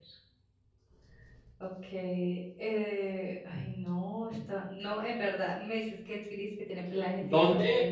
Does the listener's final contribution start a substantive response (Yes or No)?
Yes